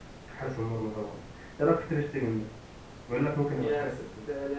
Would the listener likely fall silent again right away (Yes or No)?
No